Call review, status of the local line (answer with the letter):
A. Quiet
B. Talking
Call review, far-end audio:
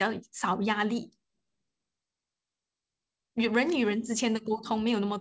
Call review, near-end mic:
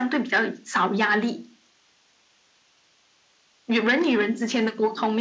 A